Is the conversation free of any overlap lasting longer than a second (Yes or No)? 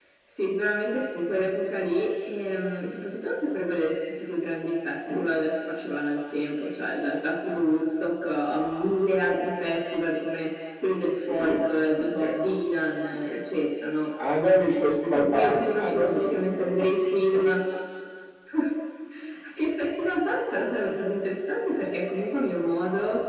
No